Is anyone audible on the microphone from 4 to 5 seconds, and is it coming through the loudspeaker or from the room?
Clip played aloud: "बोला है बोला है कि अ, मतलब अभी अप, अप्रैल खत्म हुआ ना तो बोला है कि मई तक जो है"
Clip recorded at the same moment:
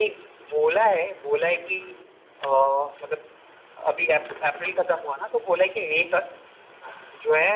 echo only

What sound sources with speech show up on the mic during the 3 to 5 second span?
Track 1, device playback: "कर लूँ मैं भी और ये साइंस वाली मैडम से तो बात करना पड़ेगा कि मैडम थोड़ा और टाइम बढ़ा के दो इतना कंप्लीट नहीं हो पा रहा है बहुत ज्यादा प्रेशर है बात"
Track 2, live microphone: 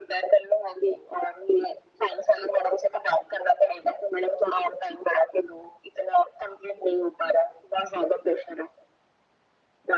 echo only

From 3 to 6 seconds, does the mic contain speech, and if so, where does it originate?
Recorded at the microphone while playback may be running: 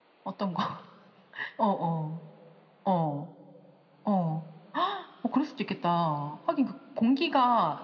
echo only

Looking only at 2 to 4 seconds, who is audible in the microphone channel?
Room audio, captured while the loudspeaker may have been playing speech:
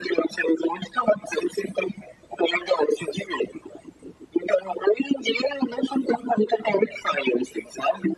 echo only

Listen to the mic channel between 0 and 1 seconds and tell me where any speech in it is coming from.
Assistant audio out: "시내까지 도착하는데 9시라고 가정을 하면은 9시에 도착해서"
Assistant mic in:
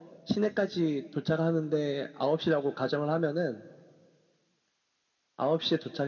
echo only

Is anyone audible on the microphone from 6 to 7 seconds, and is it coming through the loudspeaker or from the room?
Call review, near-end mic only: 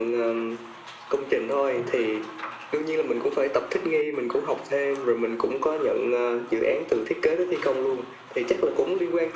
echo only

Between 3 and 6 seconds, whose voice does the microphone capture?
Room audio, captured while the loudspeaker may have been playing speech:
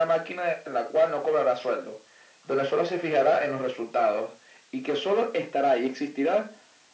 echo only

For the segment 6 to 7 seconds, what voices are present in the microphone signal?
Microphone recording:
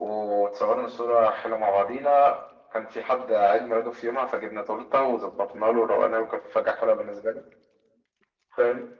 echo only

